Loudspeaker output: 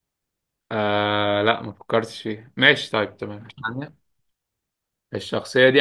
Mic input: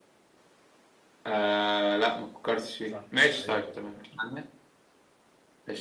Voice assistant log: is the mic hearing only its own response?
No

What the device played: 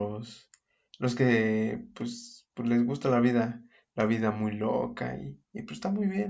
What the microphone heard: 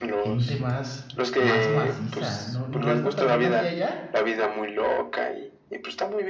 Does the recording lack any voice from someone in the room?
No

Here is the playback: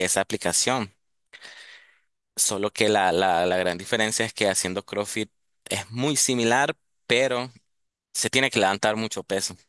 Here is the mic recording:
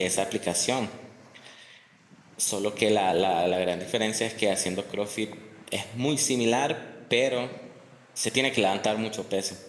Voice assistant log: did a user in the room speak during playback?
No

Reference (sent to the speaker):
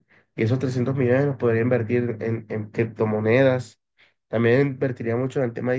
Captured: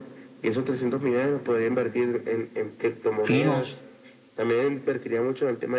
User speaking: Yes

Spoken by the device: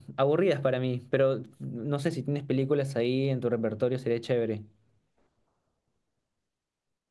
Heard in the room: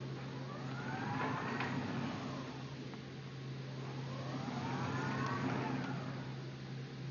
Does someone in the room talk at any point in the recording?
No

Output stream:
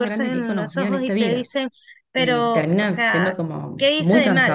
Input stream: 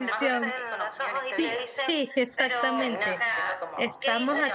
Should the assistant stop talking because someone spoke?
Yes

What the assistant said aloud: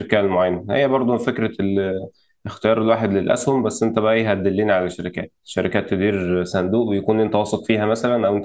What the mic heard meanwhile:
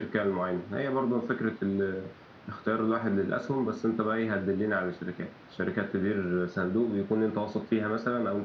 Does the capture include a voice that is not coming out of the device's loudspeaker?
No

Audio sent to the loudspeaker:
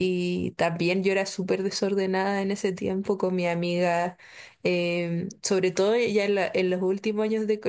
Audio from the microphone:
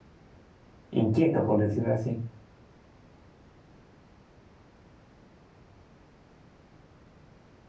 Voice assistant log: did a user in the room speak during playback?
Yes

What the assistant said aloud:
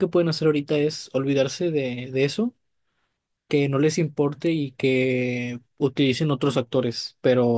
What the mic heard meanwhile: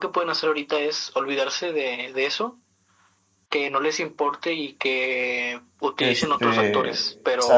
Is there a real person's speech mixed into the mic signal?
Yes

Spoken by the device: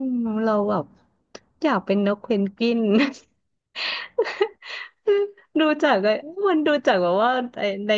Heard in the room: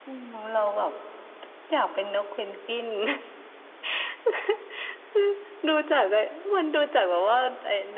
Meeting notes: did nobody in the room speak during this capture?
Yes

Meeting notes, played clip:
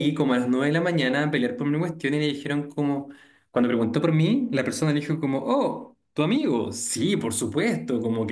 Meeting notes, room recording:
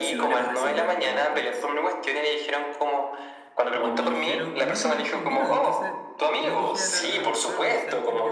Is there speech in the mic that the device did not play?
Yes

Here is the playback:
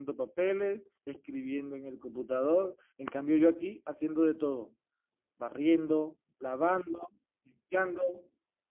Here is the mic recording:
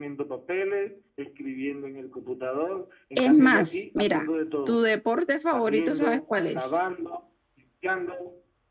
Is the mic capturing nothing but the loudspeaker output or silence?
No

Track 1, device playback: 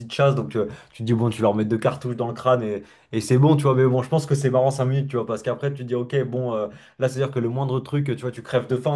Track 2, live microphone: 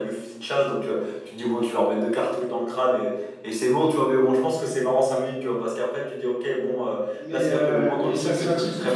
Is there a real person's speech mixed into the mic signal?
Yes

